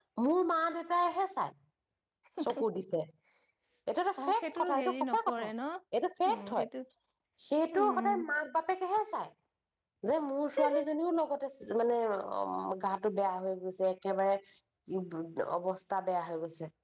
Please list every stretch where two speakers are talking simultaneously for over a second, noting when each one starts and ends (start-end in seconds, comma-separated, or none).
4.2-5.5